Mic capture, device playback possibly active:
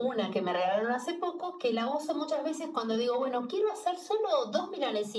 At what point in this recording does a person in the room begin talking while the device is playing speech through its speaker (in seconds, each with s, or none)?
none